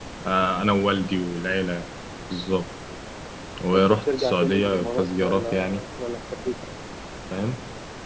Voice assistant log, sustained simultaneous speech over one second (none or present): present